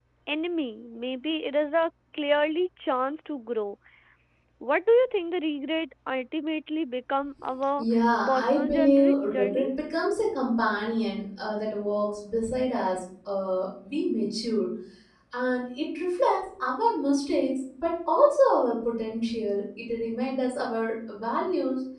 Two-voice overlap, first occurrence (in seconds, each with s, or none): 8.3 s